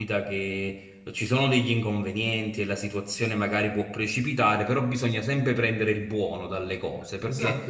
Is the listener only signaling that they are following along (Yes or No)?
No